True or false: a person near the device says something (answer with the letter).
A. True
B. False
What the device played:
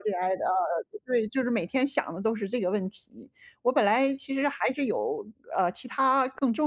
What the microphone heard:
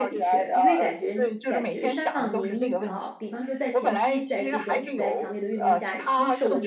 A